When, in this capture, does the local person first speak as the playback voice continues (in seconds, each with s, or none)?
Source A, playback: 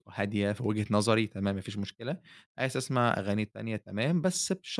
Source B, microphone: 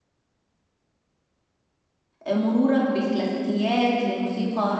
2.3 s